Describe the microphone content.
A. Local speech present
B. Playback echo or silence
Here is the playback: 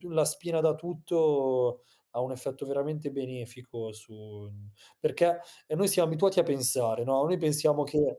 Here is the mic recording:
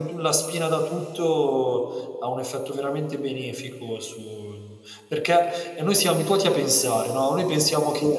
B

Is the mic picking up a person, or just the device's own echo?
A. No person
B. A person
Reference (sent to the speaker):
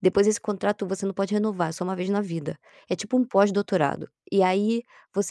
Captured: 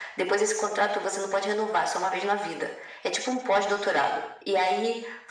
A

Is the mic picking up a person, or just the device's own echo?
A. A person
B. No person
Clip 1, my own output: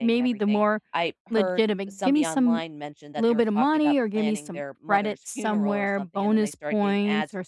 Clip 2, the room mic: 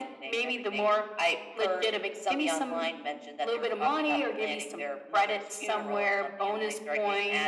B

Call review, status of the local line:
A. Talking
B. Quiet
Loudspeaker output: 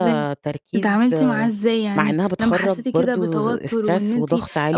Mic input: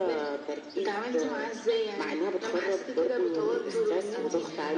A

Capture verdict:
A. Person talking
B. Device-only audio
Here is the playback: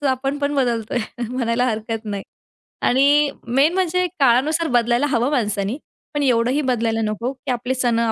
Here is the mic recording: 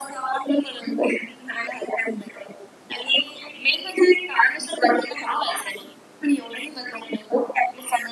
B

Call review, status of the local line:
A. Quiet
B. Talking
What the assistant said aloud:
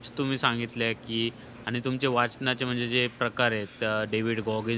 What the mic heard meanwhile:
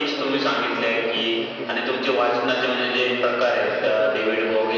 B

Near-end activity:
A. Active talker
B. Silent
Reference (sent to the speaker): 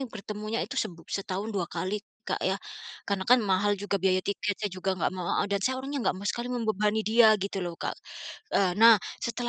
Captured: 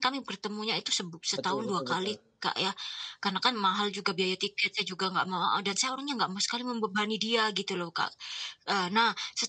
A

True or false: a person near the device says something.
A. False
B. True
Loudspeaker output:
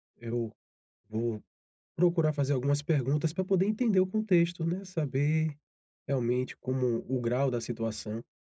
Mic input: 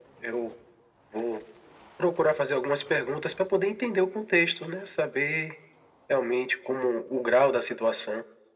A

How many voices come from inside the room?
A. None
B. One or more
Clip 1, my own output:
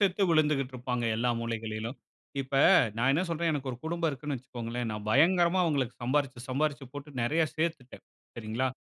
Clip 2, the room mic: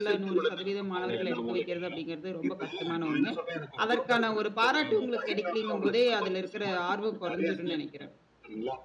B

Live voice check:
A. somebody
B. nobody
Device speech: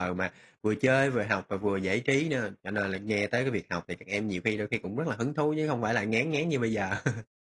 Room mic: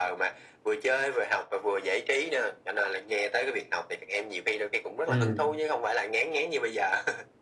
A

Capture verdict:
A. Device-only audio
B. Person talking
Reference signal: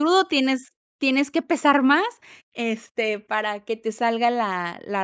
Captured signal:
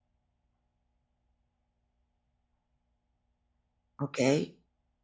B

